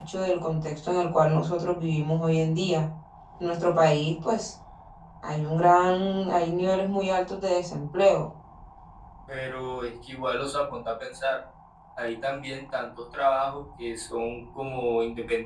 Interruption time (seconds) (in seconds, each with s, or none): none